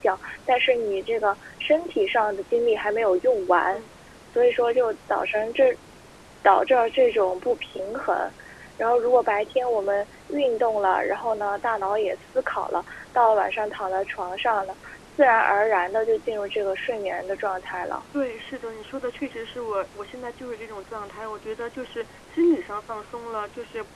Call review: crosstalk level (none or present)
none